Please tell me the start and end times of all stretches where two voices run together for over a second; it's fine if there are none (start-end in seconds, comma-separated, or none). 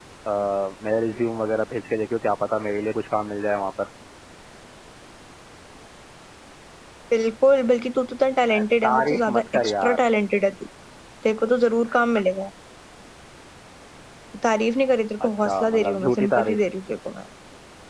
8.5-10.0, 15.2-16.6